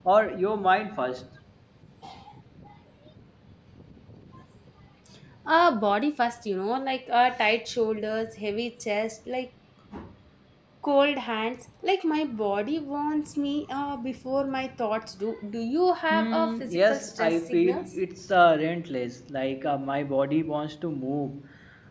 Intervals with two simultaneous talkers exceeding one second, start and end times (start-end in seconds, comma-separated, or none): 16.1-17.9